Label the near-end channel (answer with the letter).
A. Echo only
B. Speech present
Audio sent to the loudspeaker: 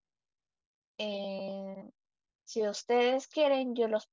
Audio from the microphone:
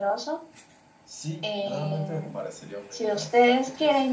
B